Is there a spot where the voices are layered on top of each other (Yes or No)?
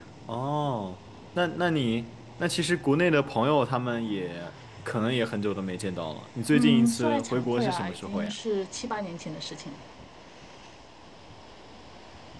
Yes